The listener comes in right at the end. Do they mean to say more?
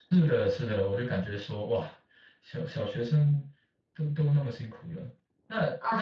Yes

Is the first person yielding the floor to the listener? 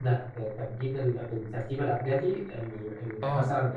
Yes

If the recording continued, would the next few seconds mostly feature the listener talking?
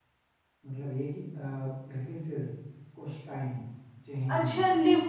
Yes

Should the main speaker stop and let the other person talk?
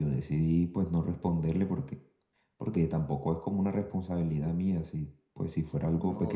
Yes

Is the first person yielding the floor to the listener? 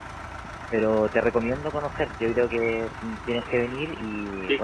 No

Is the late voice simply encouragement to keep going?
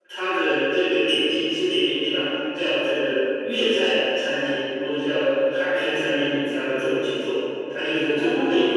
Yes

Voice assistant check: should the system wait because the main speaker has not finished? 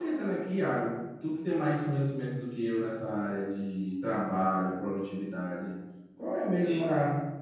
Yes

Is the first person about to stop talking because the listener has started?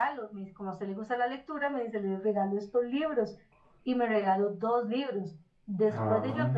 No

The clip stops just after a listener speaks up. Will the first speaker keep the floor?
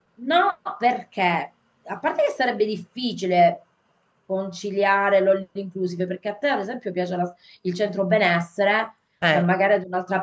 Yes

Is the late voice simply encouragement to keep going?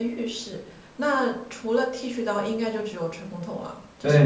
No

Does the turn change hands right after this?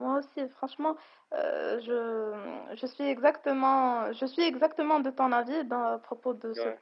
No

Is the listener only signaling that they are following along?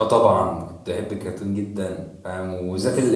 Yes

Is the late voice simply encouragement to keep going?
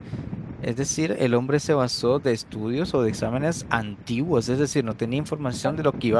Yes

